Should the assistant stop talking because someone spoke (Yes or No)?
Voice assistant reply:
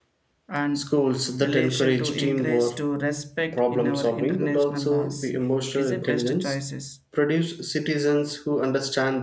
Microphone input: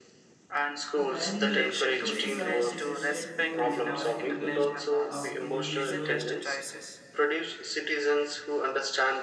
Yes